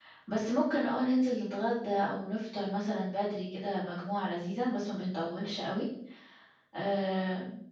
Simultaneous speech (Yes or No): No